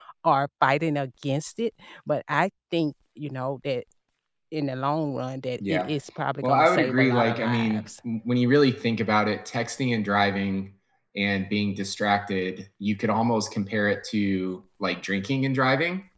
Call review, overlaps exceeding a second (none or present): present